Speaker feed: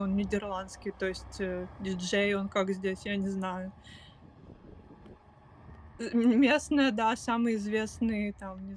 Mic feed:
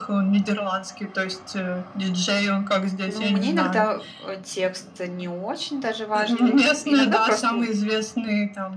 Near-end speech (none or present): present